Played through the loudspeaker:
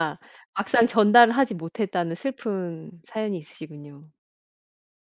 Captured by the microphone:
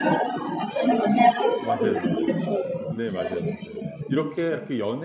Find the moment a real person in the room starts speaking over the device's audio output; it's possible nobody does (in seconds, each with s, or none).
1.6 s